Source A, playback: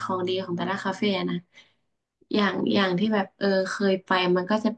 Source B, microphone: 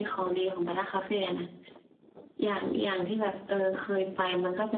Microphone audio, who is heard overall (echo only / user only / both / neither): echo only